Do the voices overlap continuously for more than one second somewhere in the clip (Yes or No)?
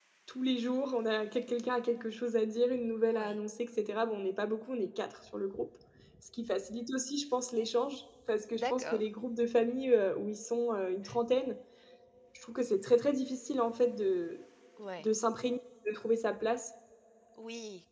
No